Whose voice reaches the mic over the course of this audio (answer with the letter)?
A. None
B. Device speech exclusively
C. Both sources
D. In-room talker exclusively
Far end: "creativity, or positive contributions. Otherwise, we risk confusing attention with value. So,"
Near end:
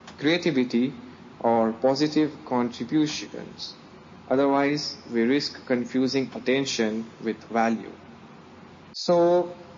B